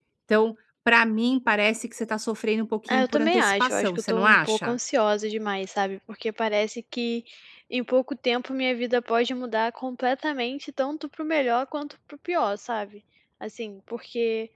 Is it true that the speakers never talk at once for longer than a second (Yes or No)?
No